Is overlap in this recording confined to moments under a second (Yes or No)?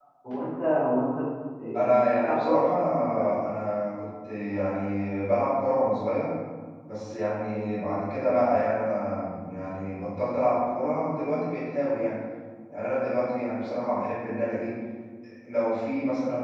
No